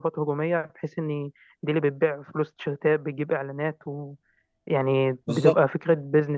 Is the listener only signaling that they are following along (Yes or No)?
Yes